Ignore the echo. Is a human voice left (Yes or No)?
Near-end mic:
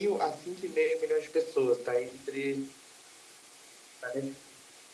No